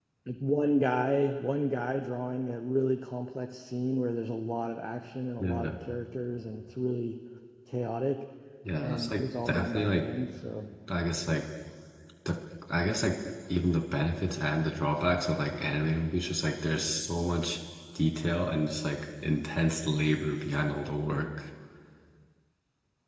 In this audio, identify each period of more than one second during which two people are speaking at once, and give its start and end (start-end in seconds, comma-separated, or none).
8.8-10.1